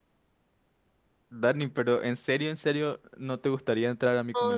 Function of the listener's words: taking over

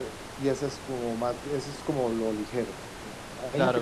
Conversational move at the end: listening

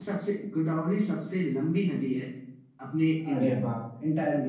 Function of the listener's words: taking over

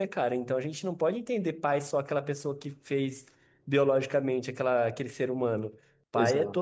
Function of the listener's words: listening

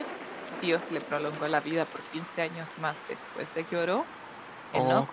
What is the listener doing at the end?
listening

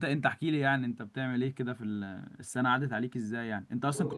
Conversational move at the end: listening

